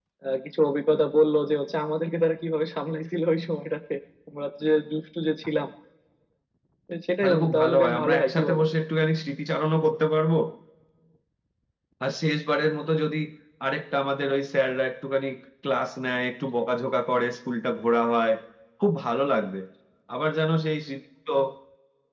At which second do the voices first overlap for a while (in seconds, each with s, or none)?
7.2 s